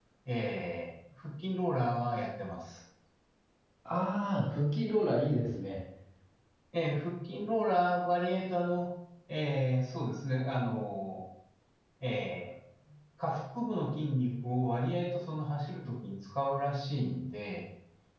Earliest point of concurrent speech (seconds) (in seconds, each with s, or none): none